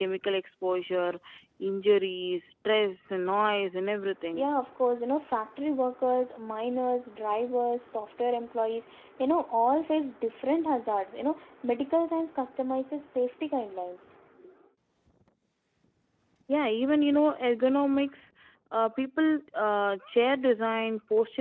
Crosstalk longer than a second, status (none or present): none